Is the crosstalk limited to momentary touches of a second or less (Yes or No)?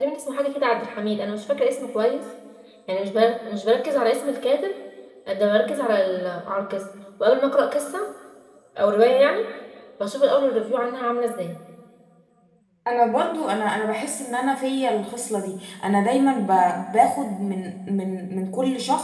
Yes